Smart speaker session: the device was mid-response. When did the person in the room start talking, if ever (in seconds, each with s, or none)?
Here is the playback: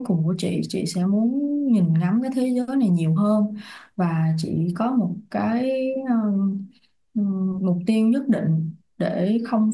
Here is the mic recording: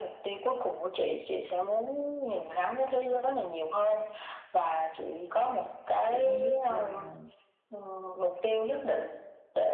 6.1 s